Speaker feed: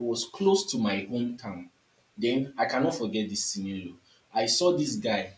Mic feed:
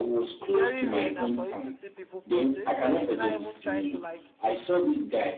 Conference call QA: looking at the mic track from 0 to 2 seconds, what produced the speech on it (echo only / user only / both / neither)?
both